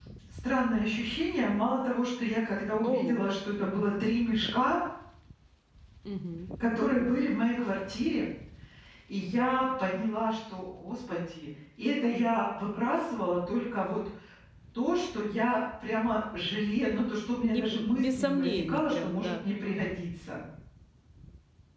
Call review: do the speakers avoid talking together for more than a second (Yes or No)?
No